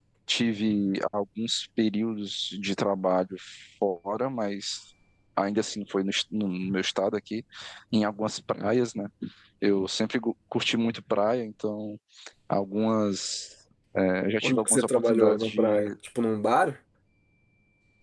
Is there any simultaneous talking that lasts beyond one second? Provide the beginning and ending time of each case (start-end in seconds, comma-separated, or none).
14.4-15.9